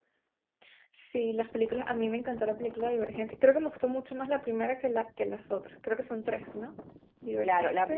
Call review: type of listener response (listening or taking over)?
taking over